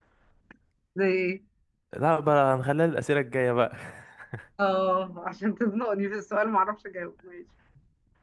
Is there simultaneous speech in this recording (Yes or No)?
No